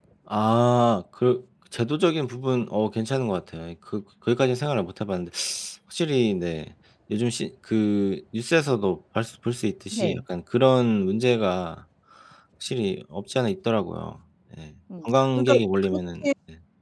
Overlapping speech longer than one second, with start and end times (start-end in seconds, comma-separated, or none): 15.0-16.3